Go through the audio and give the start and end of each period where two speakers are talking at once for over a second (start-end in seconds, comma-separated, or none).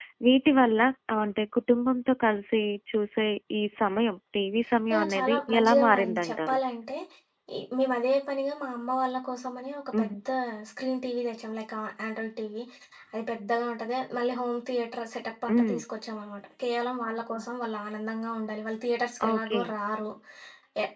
4.9-6.6